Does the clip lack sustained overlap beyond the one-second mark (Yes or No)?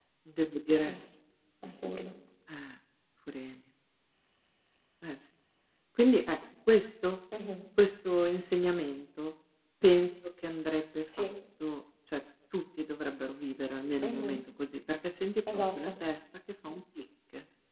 Yes